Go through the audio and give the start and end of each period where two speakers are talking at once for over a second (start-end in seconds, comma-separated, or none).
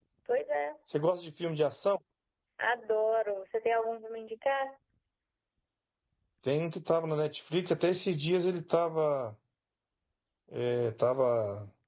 none